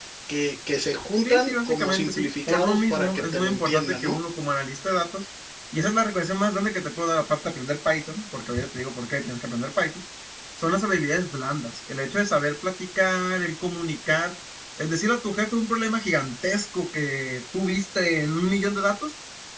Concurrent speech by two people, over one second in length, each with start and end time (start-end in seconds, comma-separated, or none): 1.2-4.2